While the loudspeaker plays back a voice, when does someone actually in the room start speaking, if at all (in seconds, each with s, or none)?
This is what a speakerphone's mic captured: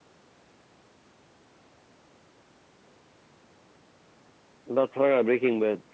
4.7 s